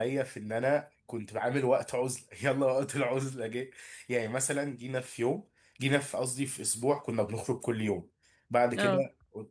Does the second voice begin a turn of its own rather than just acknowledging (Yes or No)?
No